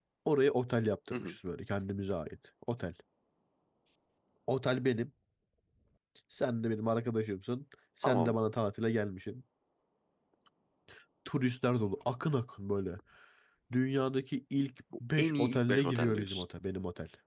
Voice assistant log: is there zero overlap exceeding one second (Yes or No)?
No